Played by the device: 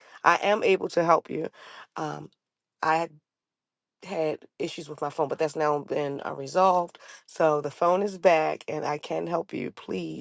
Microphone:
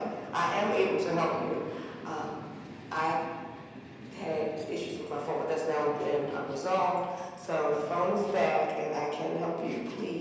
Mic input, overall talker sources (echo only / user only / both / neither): echo only